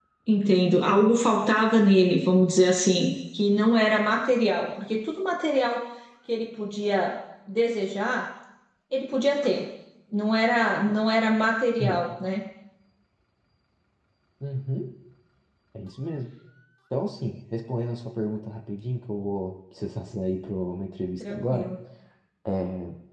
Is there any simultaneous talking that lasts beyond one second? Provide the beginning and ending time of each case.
none

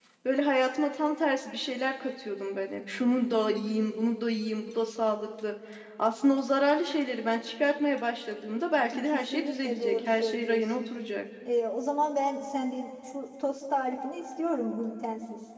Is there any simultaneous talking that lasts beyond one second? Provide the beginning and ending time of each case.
9.1-10.8

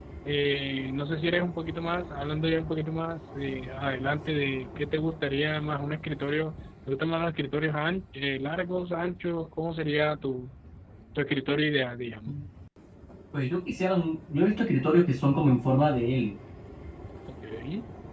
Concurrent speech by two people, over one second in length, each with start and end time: none

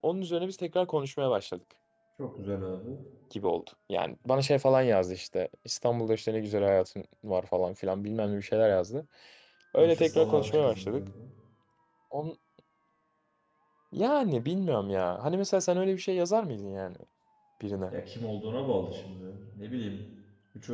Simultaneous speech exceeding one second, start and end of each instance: 9.8-11.0

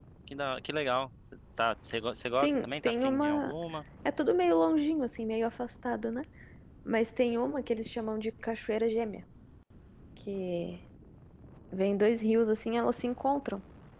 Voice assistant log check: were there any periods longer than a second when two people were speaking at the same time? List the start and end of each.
2.3-3.5

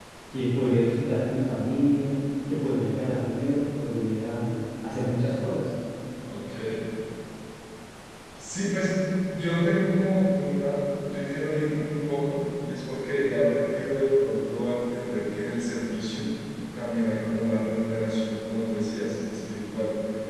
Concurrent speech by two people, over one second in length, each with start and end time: none

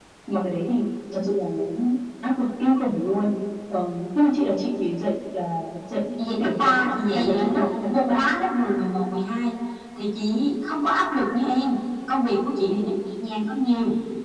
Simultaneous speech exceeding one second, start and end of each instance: 6.4-8.3

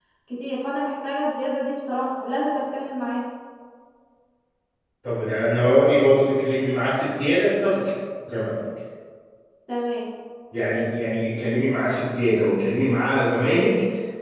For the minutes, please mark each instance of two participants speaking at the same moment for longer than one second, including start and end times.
none

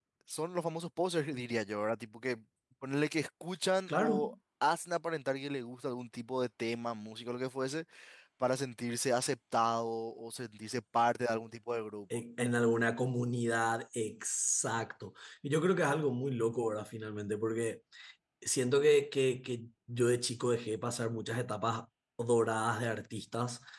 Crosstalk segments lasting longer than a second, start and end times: none

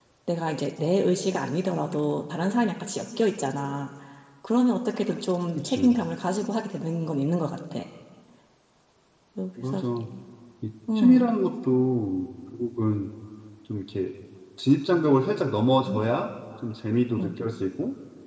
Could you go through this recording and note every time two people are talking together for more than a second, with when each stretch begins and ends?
none

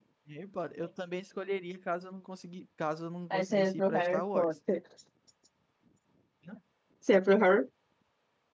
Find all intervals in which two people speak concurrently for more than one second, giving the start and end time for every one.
3.3-4.5

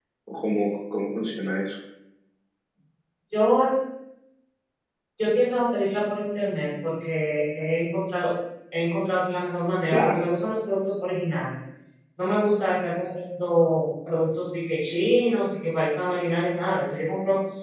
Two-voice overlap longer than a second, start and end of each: none

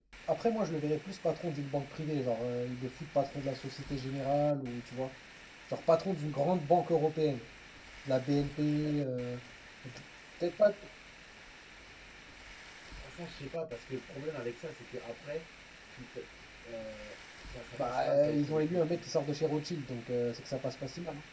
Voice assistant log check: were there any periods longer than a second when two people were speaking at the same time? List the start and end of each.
17.8-19.0

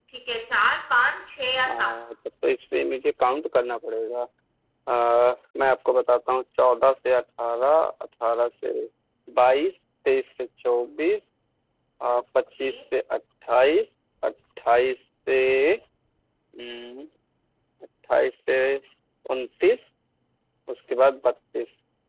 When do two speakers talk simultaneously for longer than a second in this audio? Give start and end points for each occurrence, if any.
none

